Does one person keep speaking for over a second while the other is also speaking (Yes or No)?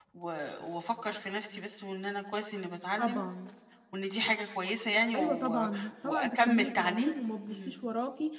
Yes